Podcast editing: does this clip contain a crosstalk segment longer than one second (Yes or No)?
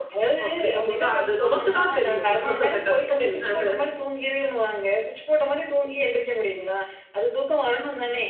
Yes